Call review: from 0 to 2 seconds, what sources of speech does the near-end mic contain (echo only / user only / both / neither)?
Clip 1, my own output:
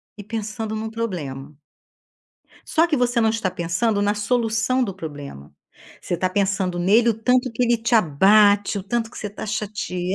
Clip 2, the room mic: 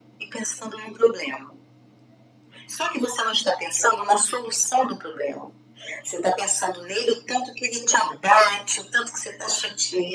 echo only